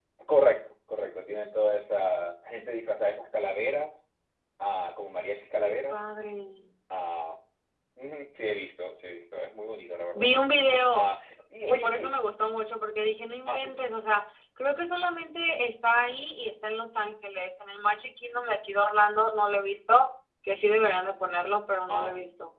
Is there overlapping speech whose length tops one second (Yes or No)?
No